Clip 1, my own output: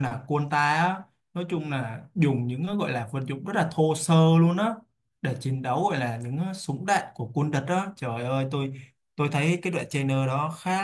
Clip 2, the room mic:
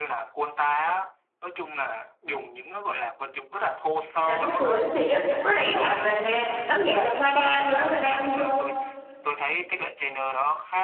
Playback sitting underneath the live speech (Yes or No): Yes